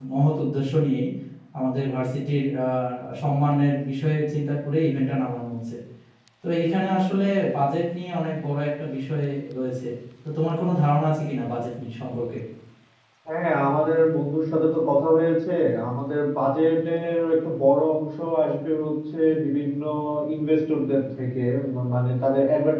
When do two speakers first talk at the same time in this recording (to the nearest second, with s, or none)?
none